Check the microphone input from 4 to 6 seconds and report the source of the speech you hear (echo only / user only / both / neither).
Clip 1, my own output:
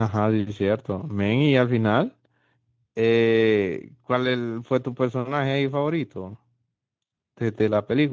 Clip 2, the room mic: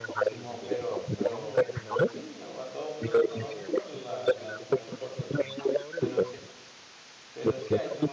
both